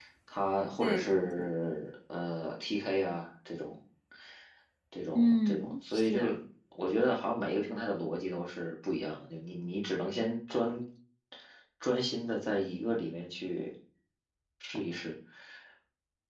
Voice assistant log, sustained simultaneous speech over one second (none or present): present